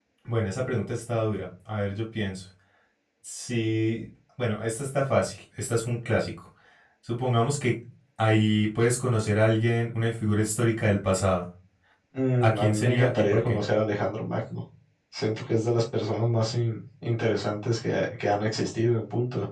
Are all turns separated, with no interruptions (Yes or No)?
No